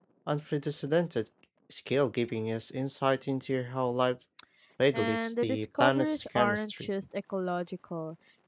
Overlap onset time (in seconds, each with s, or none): 4.9 s